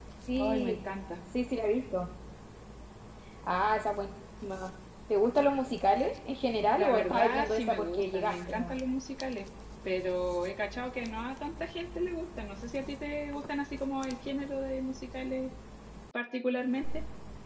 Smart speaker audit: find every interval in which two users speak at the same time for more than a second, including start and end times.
6.8-8.8

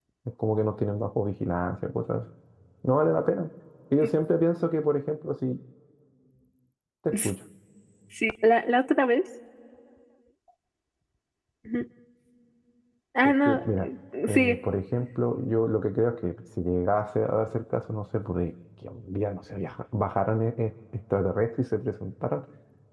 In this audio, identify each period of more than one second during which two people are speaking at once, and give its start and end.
none

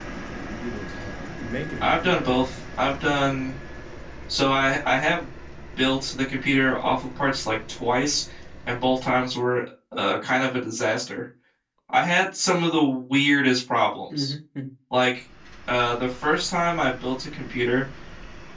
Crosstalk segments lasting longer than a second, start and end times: none

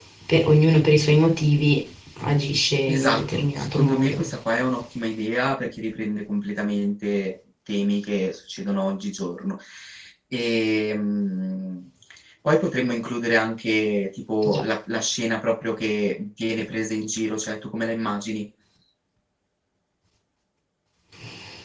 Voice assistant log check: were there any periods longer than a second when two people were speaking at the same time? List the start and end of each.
2.9-4.3

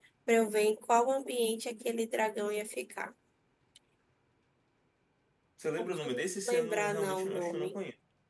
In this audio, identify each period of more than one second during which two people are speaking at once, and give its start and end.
5.8-7.8

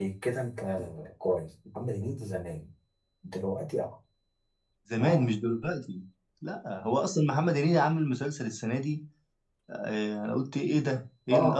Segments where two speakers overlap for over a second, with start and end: none

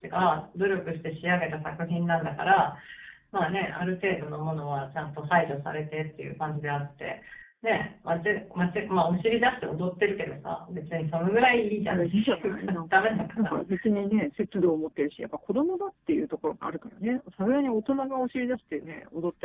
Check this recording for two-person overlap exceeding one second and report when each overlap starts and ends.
11.9-13.6

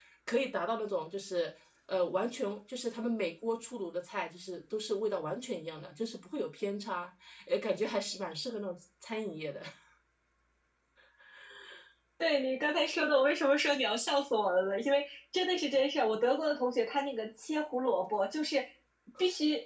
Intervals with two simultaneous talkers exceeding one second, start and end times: none

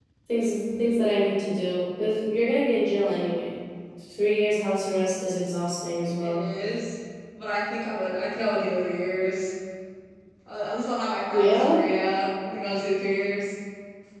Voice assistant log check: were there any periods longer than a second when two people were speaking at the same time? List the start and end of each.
none

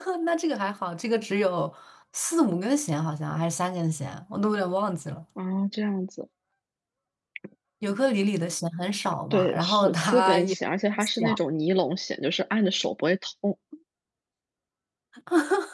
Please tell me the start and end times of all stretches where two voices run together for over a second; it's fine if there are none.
9.3-10.6

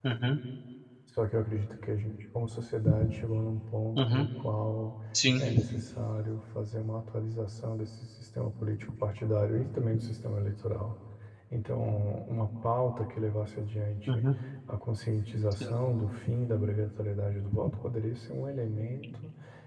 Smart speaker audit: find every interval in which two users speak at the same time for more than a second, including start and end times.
none

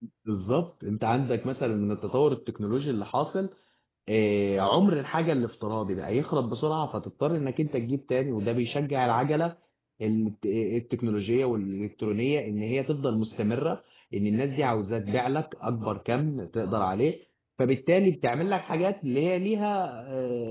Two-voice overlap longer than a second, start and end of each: none

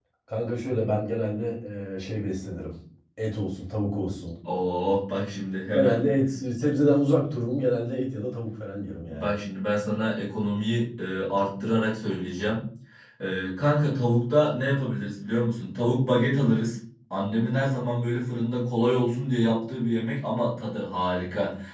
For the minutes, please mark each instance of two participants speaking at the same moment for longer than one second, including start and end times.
none

